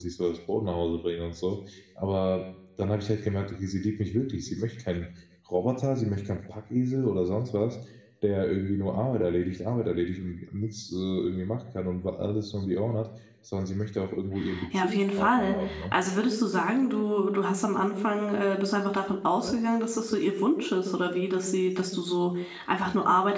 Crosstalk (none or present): present